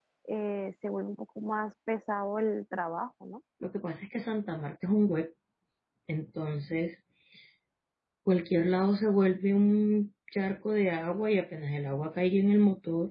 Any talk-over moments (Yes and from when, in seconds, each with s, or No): No